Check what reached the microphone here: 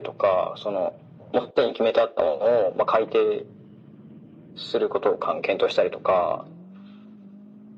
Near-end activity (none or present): none